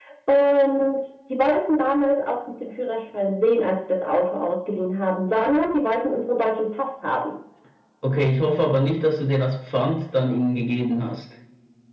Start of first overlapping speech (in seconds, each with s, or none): none